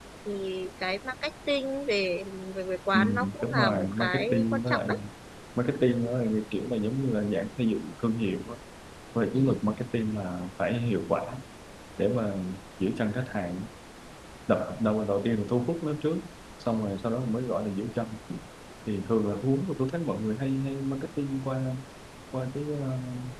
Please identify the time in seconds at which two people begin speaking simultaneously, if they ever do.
2.9 s

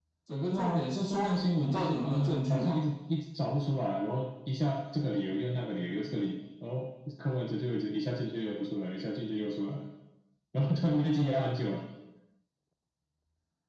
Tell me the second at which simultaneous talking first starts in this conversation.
0.5 s

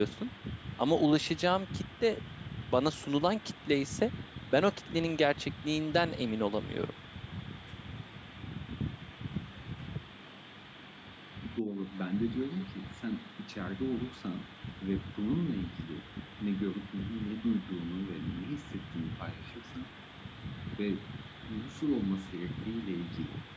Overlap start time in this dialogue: none

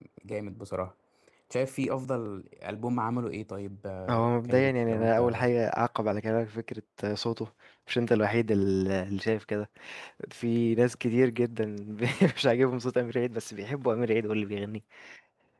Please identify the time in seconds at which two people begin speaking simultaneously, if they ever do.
4.1 s

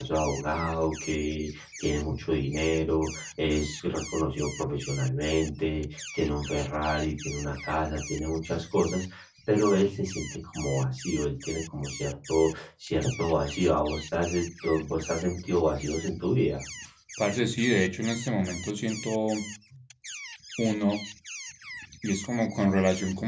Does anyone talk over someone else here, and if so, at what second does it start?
none

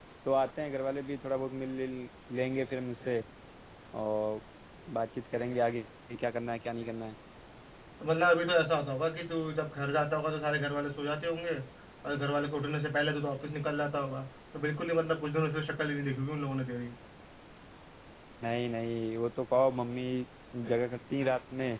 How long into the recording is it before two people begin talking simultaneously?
none

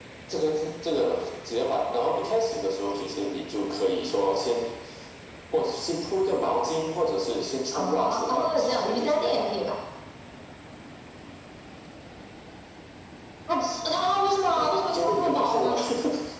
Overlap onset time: 7.7 s

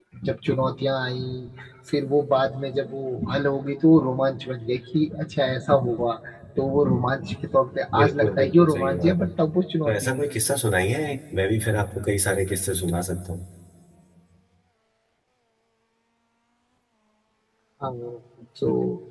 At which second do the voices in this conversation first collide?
8.0 s

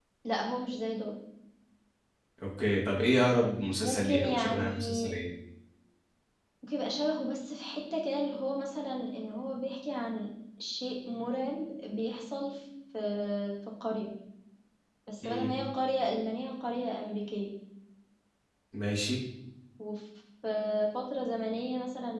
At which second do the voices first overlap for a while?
3.8 s

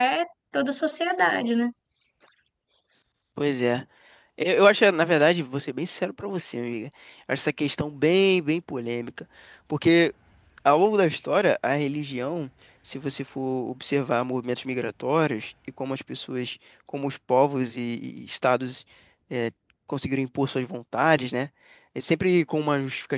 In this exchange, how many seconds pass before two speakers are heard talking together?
none

